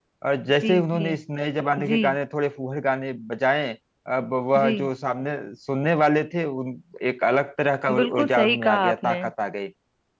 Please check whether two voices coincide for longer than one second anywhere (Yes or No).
Yes